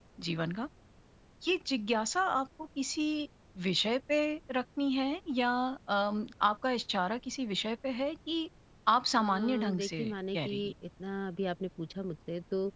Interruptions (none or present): present